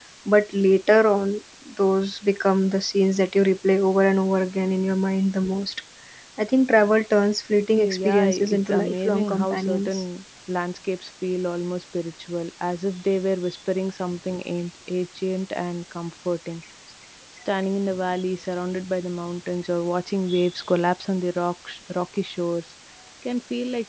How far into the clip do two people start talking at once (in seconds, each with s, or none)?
7.8 s